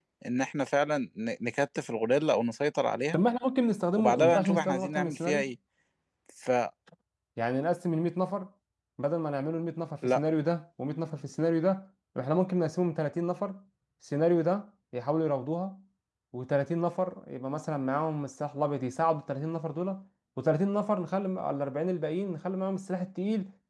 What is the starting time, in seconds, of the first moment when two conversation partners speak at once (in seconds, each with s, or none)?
3.9 s